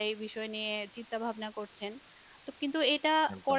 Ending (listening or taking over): listening